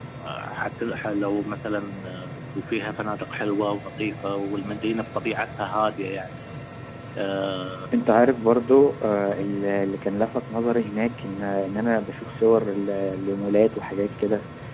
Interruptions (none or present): none